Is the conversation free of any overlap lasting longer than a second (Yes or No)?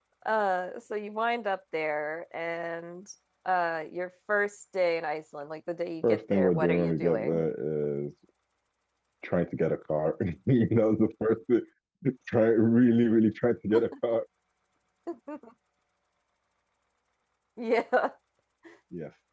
No